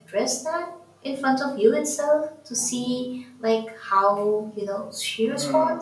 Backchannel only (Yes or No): No